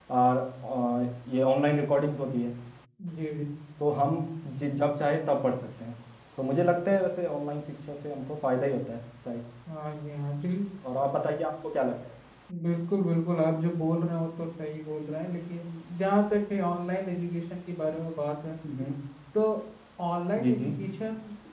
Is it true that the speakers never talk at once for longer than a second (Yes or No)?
Yes